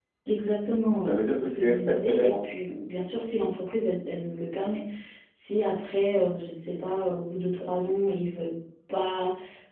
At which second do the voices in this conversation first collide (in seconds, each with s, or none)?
1.0 s